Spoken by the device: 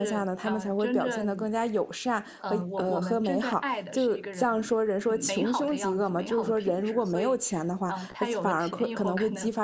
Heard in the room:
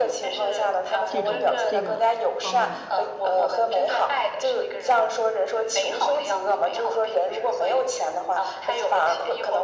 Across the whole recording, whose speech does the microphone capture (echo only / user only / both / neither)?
both